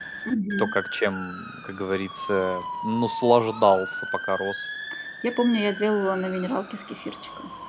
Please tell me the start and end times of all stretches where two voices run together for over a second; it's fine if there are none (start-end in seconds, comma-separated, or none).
none